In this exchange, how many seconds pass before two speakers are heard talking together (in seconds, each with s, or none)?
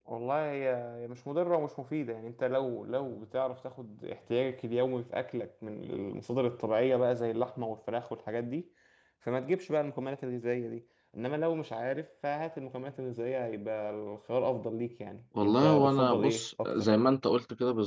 15.4 s